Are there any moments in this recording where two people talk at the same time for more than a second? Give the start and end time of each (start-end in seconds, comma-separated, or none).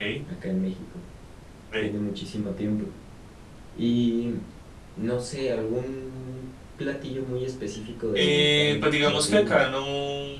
8.2-9.6